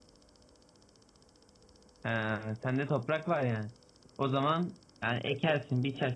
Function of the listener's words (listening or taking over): listening